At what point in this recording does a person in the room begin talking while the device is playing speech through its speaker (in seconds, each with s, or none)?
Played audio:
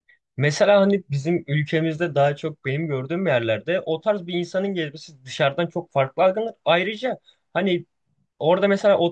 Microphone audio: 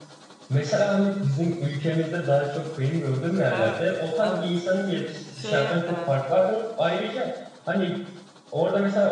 3.5 s